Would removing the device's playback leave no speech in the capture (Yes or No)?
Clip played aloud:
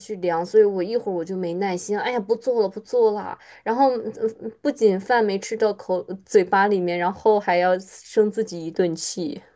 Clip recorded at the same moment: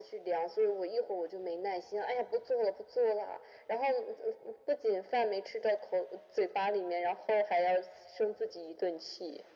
Yes